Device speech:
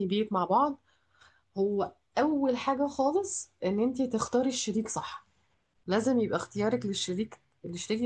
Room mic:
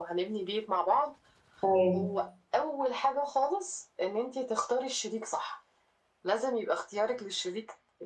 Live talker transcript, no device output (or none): ايوه